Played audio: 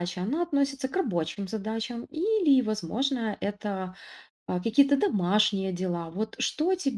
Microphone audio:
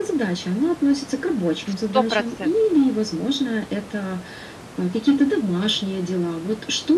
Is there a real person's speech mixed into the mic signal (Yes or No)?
Yes